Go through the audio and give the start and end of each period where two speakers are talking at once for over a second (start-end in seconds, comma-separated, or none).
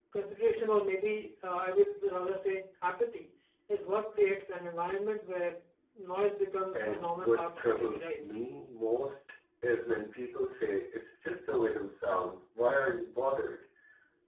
6.7-8.2